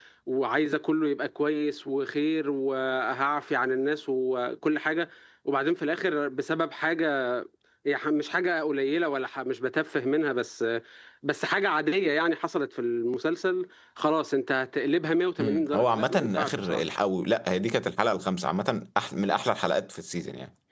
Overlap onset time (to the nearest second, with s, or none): 15 s